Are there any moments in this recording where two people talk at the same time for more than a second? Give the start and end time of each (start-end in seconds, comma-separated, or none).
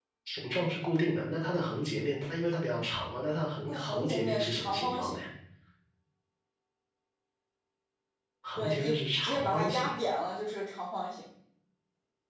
3.7-5.2, 8.6-9.8